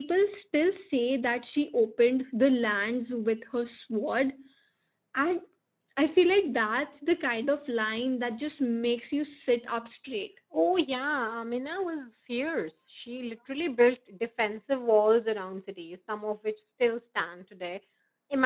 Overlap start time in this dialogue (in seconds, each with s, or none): none